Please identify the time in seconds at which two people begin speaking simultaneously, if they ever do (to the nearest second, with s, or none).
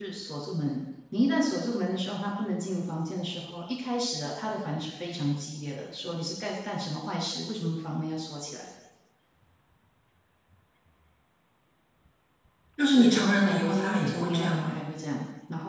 13 s